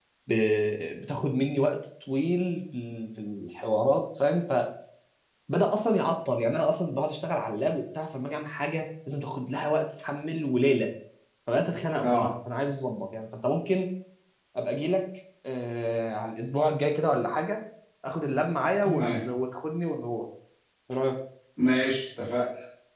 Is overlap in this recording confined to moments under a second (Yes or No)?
Yes